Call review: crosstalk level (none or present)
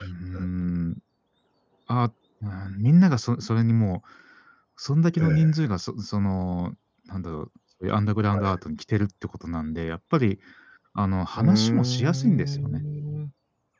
present